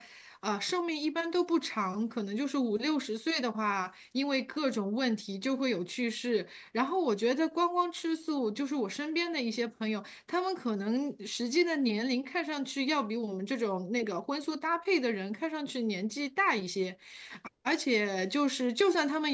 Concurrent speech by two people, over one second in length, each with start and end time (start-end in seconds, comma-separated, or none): none